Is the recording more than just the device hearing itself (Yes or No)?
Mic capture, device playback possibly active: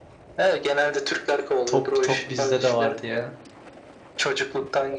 Yes